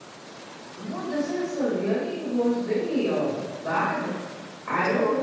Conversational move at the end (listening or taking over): listening